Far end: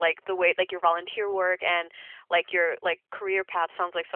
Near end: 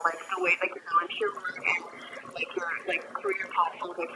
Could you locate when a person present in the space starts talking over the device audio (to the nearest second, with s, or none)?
none